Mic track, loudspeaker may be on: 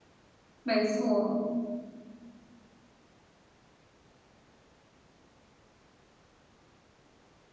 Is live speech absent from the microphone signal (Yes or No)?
No